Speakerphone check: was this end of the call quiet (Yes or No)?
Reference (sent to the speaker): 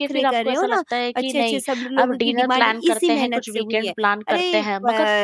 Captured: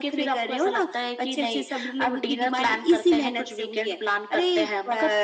Yes